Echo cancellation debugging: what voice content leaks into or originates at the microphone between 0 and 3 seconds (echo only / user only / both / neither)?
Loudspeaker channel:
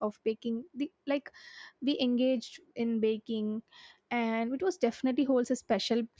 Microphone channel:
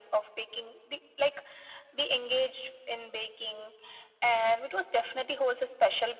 echo only